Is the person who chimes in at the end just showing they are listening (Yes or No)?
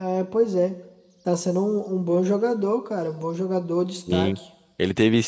No